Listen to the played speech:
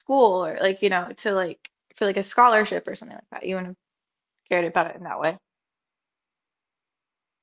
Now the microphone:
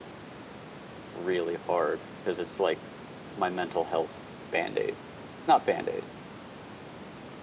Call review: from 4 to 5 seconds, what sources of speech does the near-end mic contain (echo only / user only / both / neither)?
user only